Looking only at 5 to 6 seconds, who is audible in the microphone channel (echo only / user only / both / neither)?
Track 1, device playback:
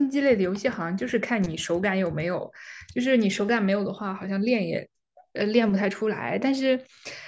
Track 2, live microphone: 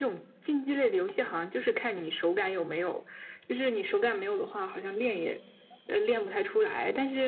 echo only